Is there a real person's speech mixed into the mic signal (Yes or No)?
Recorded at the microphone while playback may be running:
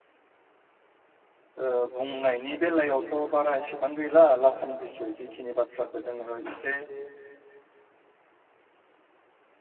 Yes